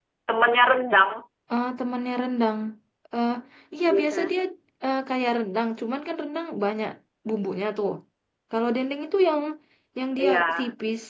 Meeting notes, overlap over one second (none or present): none